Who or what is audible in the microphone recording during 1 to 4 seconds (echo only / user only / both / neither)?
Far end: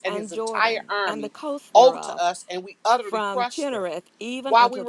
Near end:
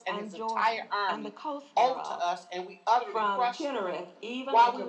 echo only